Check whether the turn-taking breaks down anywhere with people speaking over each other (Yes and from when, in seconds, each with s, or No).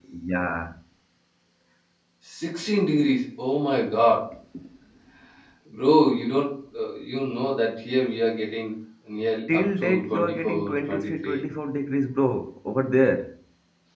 Yes, from 9.5 s